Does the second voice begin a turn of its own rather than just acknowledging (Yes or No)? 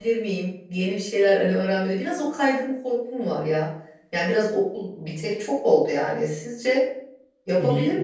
Yes